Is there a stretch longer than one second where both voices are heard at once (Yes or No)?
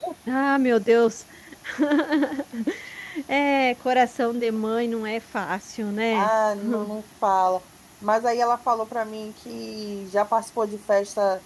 No